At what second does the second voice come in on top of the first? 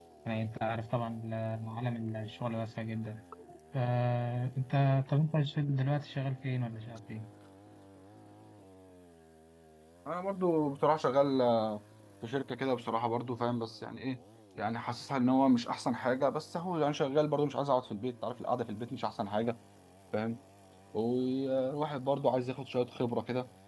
none

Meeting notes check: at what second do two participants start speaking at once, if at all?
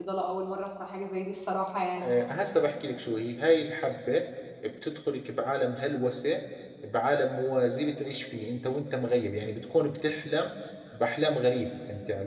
none

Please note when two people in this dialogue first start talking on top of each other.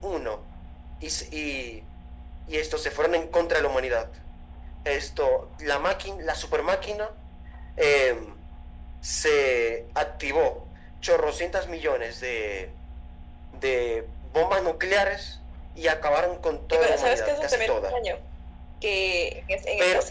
16.7 s

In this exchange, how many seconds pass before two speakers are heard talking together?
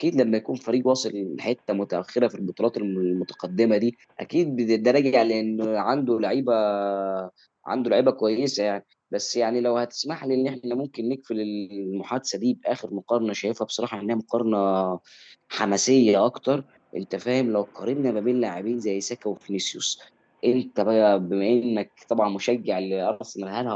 none

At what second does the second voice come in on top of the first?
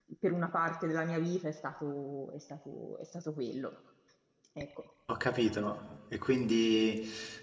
none

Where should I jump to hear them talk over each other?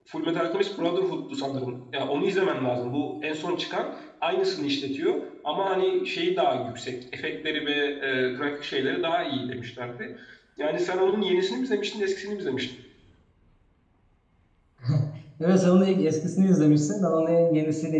none

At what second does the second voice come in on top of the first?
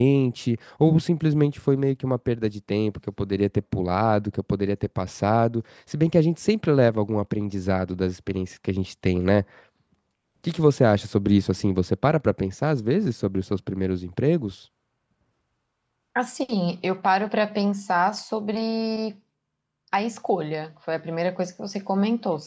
none

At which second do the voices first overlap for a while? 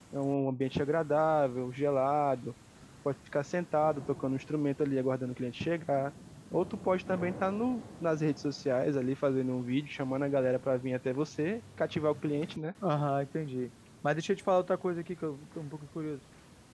none

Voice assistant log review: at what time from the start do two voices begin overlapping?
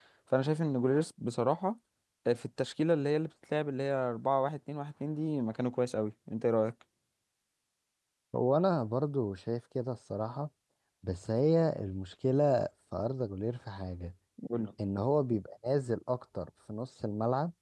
none

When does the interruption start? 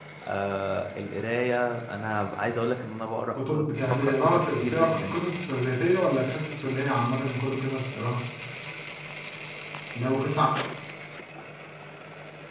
3.3 s

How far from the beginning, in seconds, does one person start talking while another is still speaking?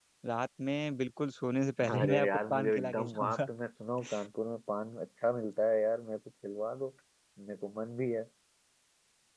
1.8 s

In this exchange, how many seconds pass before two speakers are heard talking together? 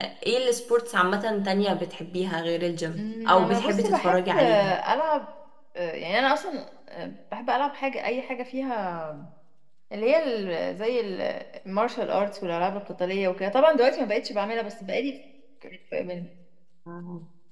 3.0 s

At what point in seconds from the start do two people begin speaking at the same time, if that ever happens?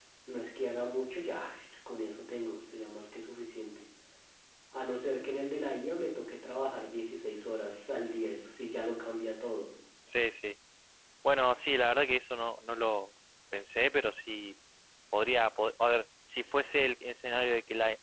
none

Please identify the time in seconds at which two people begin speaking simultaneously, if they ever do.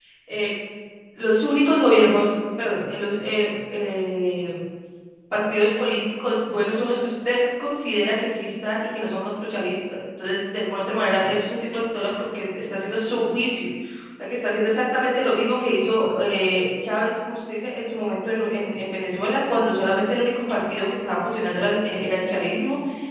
none

